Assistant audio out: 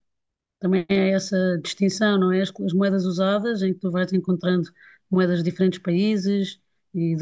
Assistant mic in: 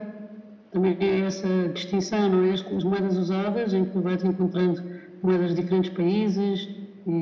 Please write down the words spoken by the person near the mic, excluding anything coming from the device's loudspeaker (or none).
none